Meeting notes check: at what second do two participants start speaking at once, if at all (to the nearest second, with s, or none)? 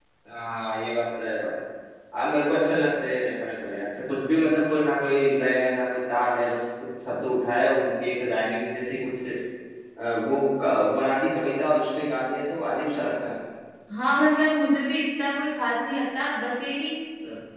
none